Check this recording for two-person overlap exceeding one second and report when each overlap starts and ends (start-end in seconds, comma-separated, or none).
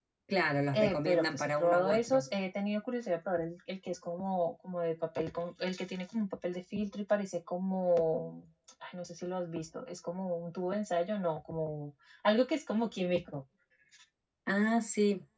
0.7-2.2